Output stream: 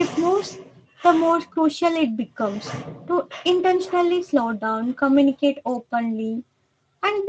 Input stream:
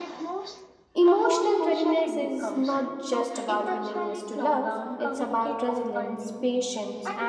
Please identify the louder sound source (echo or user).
user